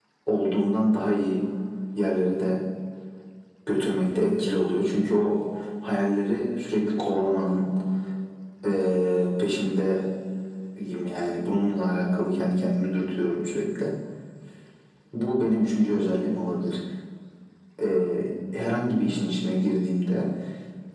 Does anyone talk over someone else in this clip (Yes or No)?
No